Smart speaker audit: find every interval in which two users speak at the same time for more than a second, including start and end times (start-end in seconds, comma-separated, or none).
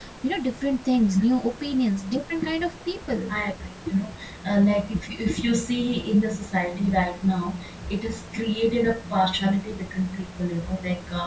none